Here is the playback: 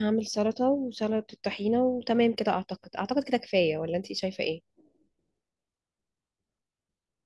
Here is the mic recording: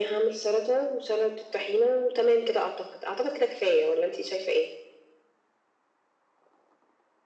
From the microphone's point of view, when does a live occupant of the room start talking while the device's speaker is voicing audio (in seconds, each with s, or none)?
none